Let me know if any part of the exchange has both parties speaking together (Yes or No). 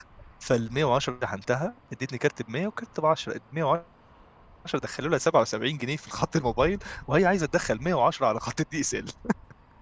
No